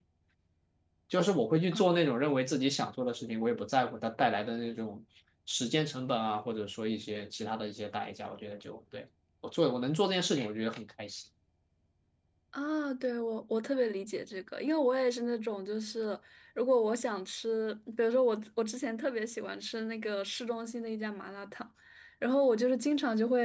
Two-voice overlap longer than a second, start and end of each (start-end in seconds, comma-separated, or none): none